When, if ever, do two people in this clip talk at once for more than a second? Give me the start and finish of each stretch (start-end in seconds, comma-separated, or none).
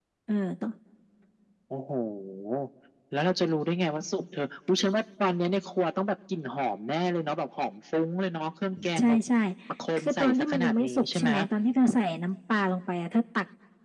10.0-11.3